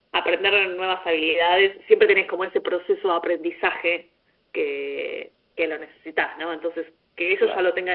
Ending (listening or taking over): listening